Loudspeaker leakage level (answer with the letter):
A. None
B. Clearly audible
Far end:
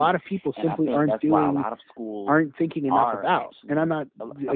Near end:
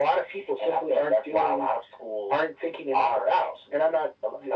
B